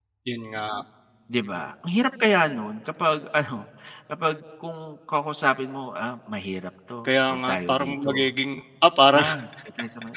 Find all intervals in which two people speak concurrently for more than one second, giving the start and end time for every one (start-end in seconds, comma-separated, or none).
7.1-8.3